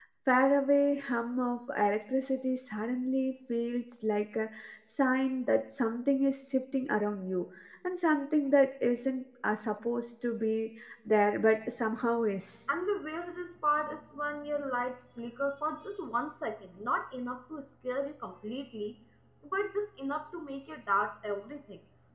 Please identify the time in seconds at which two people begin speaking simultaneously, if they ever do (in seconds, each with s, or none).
none